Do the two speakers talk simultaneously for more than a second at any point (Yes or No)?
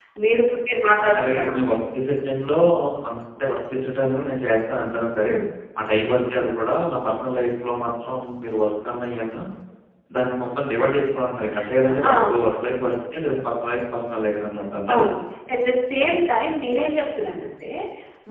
No